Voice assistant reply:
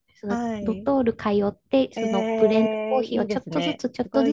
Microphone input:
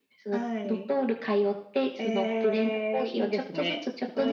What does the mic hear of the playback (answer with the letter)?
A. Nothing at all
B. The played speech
B